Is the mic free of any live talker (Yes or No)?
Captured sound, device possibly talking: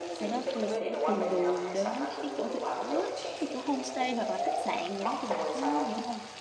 No